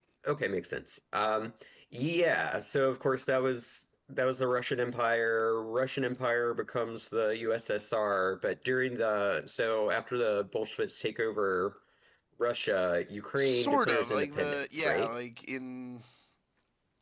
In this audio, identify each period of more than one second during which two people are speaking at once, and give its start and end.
13.4-15.1

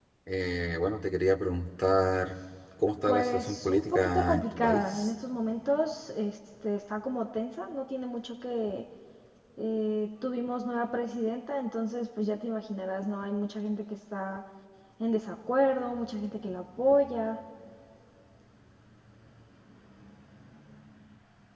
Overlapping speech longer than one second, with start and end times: 3.0-5.1

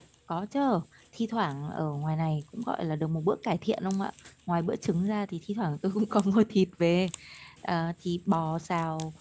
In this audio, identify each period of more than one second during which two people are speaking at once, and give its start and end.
none

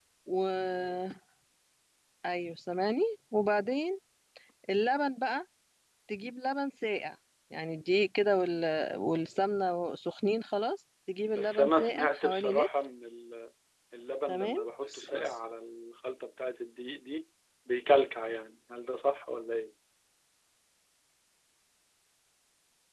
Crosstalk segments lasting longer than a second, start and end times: 11.4-12.7

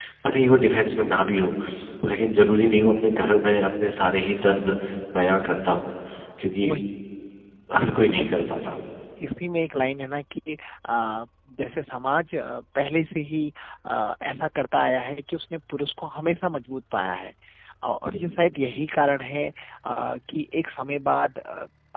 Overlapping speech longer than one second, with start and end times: none

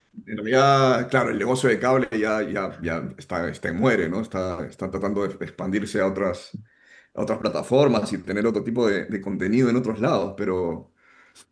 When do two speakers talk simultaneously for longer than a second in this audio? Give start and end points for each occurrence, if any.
none

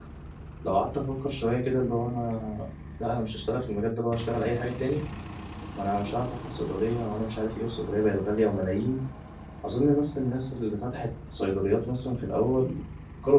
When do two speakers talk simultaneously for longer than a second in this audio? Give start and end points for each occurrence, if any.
none

